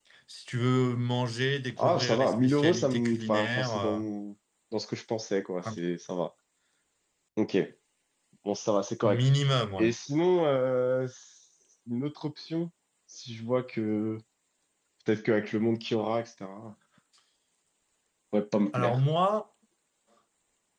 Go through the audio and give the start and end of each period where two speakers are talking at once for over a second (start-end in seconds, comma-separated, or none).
1.8-4.0